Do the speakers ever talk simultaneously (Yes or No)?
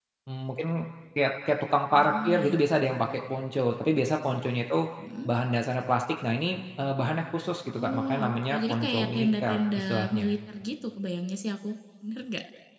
Yes